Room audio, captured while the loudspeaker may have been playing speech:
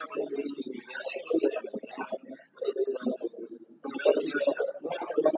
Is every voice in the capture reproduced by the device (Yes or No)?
Yes